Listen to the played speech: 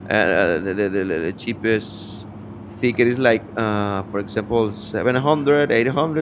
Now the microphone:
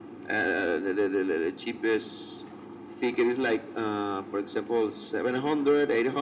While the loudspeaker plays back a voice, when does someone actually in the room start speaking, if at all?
none

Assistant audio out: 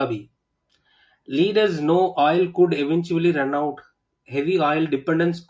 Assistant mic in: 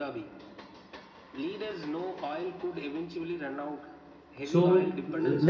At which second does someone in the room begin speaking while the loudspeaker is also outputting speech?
5 s

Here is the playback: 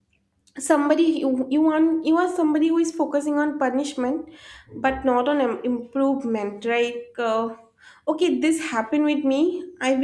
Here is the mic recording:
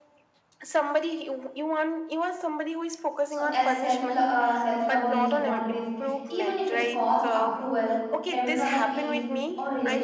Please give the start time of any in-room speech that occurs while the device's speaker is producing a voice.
3 s

